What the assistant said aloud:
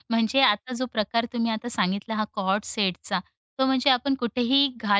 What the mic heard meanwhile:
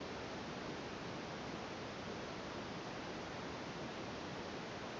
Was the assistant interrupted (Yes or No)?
No